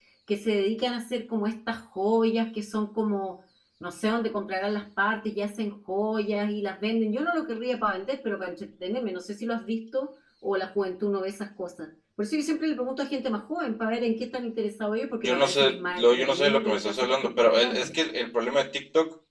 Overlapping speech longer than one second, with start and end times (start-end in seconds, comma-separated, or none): 15.2-17.9